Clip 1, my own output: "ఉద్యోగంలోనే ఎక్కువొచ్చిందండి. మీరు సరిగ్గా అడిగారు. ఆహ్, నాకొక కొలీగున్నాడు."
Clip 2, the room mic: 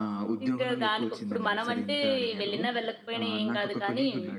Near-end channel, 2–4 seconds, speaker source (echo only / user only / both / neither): both